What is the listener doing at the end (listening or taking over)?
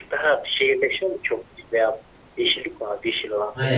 taking over